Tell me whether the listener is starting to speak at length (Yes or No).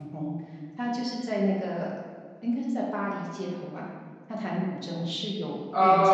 Yes